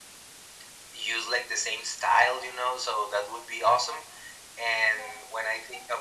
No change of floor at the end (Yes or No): Yes